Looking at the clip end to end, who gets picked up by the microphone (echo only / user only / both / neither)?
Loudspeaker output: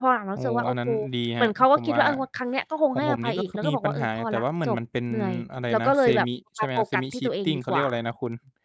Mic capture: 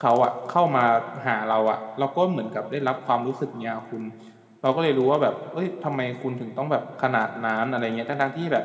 user only